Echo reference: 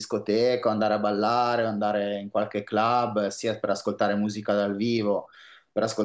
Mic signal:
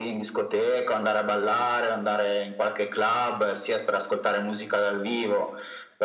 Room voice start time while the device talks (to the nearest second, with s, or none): none